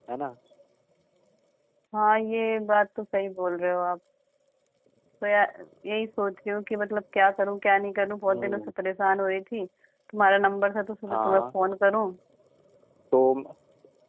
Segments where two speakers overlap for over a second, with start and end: none

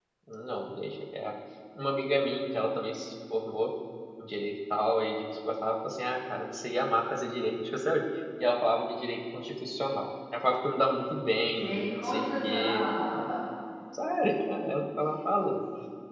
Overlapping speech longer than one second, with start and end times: 11.5-13.3

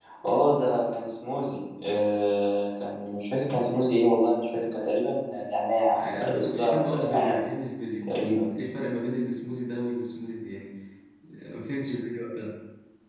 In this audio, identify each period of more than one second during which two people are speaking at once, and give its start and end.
5.9-7.3

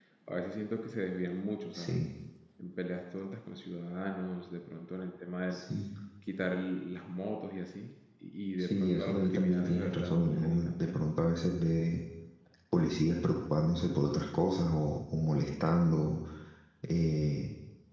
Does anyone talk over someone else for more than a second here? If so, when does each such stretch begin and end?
8.6-11.0

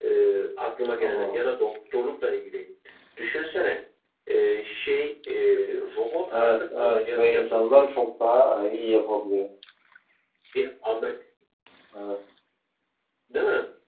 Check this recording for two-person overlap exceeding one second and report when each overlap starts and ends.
6.3-7.9

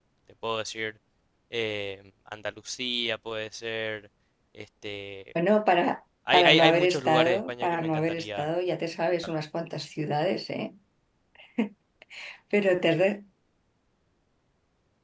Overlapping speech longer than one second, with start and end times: 6.3-8.5

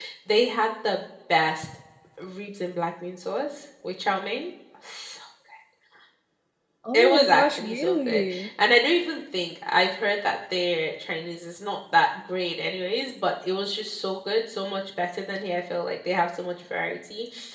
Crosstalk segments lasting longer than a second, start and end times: 6.9-8.5

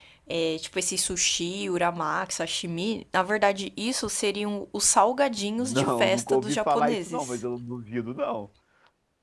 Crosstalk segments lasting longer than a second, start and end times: 5.6-7.4

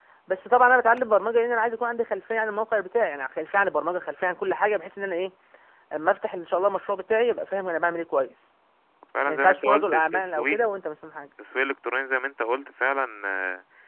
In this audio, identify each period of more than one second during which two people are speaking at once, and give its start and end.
9.3-10.6

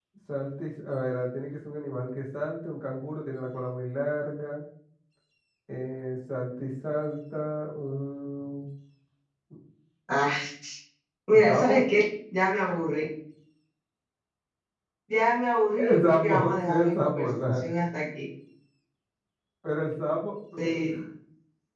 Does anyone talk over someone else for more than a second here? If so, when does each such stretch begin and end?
15.8-17.6

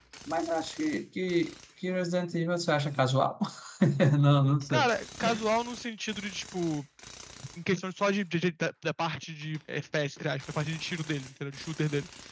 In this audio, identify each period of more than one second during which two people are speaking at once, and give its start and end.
none

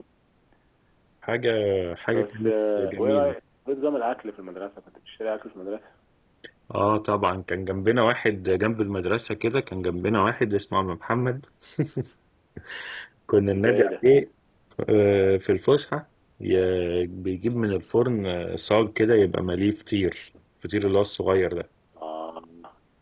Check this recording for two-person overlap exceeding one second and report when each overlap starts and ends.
2.1-3.3

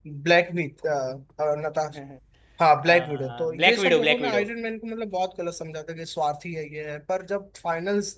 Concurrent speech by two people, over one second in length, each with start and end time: 2.8-4.4

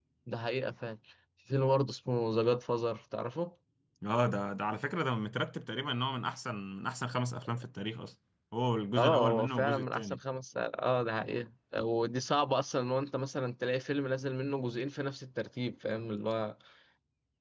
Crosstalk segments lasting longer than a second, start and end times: 9.0-10.2

